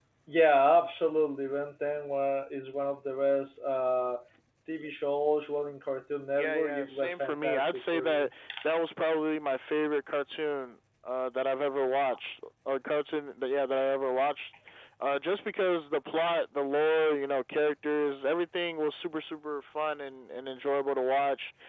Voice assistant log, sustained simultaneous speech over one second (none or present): present